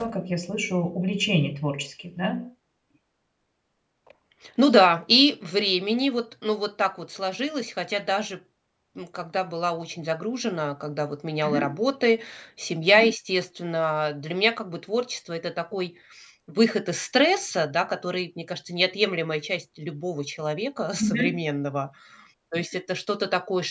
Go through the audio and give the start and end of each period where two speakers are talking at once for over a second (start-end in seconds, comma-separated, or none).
none